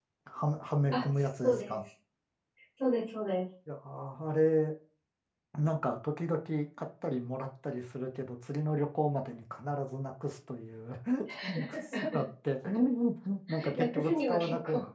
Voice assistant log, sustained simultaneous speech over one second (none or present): present